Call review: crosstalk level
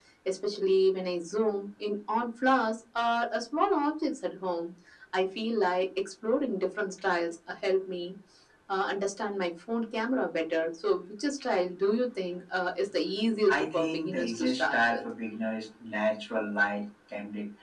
present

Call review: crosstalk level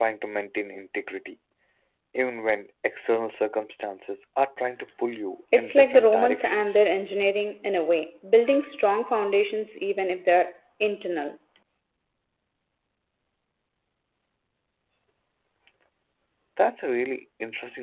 present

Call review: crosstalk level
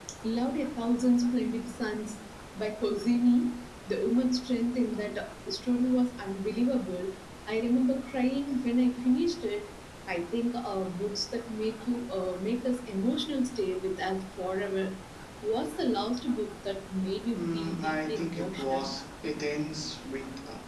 present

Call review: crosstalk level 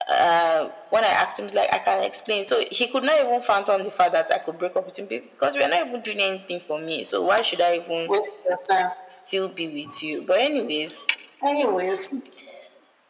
none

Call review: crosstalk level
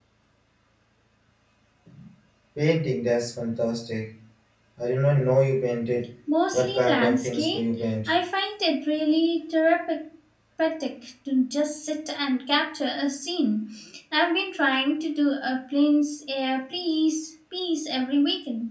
present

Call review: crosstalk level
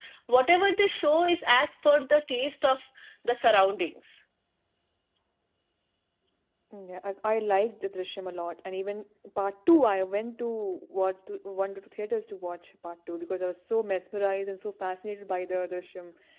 none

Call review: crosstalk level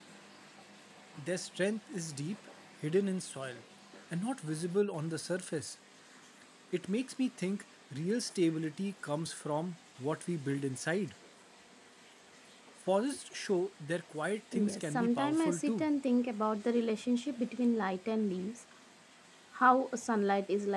present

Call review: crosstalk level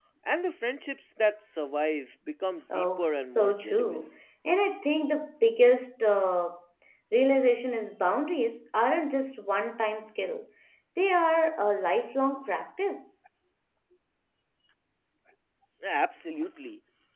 present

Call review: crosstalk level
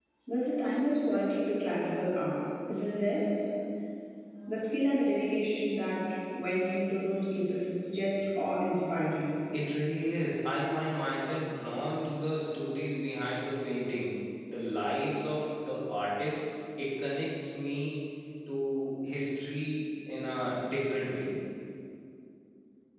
none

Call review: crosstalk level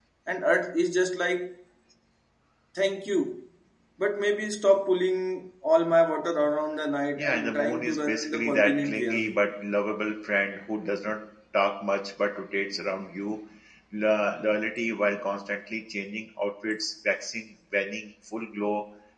present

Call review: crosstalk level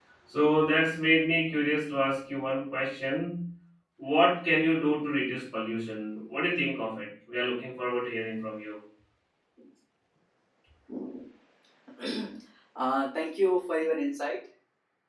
none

